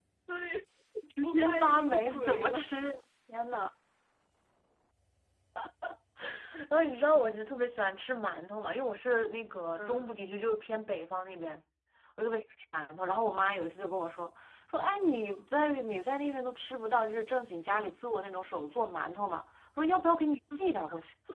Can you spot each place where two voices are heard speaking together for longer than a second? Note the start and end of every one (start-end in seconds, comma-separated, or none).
1.2-2.6